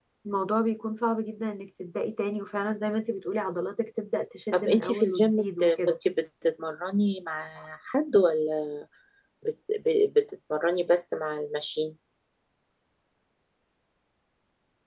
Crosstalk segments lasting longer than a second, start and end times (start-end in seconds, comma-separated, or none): 4.5-6.0